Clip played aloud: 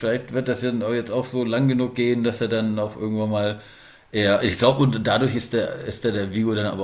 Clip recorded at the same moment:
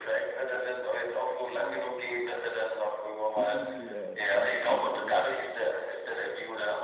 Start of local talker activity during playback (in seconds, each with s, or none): 3.3 s